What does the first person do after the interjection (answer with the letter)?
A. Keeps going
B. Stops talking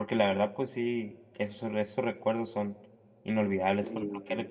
A